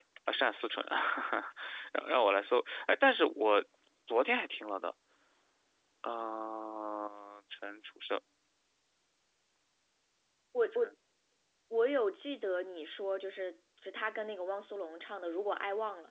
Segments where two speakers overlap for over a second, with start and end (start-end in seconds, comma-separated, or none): none